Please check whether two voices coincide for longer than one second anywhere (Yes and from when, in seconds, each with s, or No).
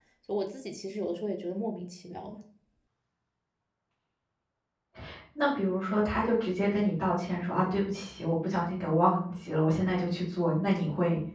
No